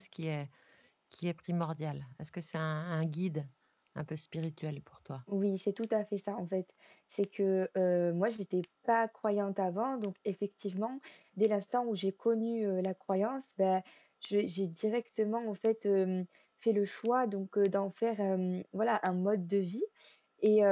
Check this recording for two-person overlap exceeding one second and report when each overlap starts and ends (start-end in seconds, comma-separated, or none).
none